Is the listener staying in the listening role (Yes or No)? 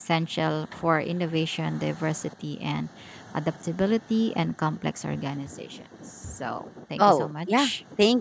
No